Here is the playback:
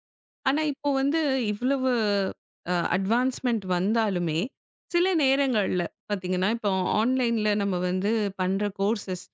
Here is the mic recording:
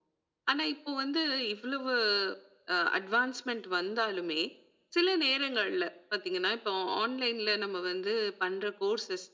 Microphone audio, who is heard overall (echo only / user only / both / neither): echo only